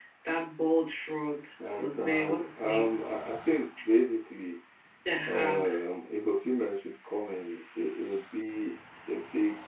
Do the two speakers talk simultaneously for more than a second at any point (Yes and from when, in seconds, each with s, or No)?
Yes, from 1.8 s